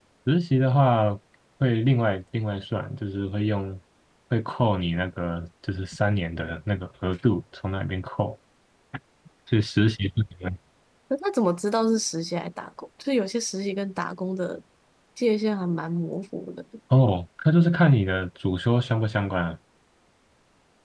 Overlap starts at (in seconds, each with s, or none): none